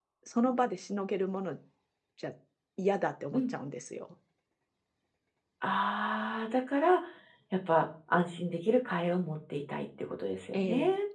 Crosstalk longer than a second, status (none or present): none